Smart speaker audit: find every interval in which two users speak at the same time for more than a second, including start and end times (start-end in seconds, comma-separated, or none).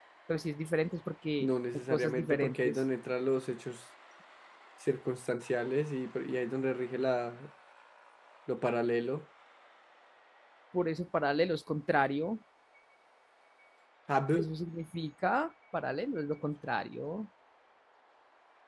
1.4-2.8